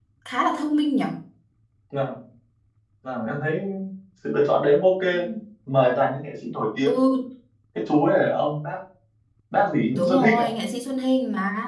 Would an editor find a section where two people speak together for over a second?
No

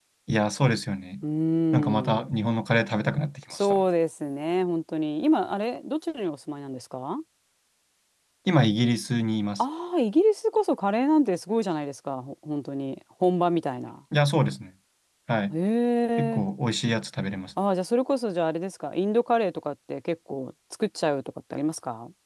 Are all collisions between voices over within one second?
Yes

